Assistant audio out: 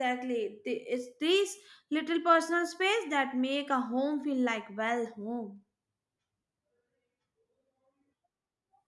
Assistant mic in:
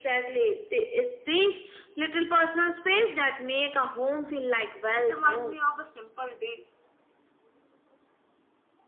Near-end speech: present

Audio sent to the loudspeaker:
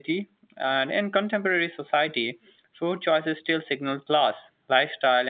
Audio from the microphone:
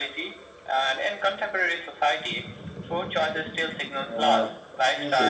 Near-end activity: present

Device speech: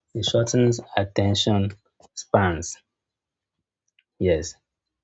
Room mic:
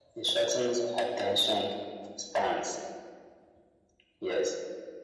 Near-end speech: none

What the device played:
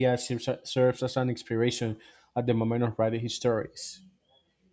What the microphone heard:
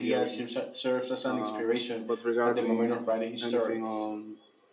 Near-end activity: present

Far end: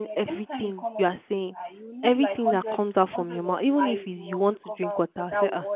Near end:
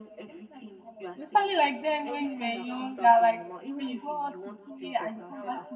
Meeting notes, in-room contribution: present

